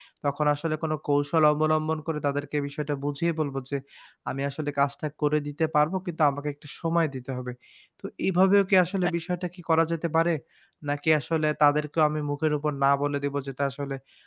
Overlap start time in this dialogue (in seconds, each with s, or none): none